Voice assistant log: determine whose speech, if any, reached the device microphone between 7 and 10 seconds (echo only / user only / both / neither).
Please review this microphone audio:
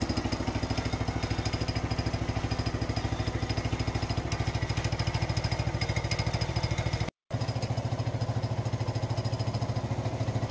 neither